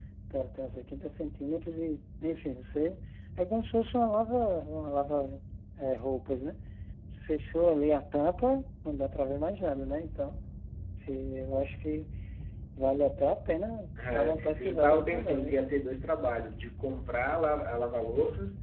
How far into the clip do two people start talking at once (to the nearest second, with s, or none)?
14 s